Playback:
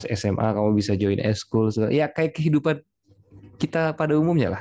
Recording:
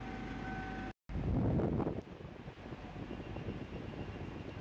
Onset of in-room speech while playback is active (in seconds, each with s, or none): none